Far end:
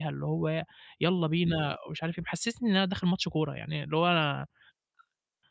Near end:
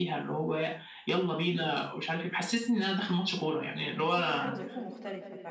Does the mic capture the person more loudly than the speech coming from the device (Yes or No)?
No